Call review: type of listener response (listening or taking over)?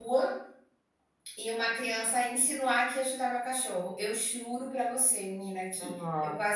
listening